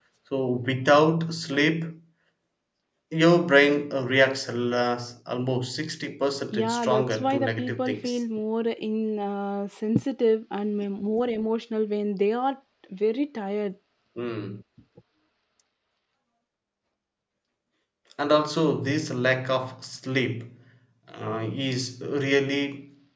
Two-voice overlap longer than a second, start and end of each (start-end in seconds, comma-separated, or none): 6.5-8.2